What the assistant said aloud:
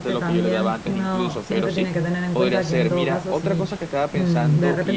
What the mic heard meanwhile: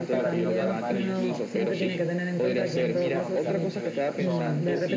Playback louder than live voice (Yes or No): Yes